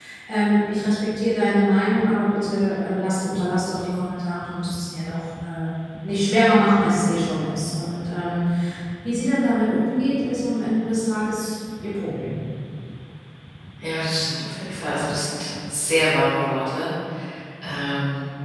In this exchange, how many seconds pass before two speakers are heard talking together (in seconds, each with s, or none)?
none